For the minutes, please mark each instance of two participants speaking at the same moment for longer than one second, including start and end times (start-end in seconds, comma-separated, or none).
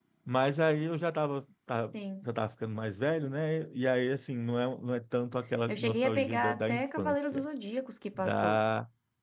5.7-7.5